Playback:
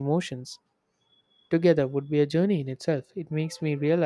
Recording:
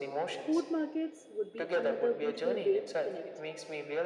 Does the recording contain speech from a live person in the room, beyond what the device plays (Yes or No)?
Yes